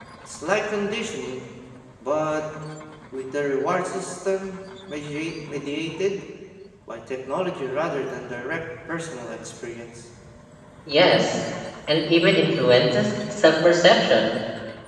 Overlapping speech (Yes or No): No